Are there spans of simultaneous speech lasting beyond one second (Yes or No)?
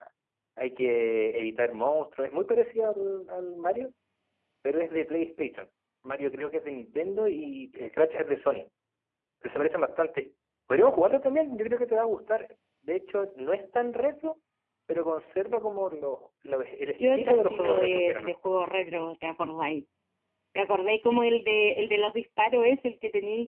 Yes